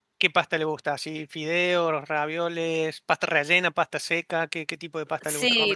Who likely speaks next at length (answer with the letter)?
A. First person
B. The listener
B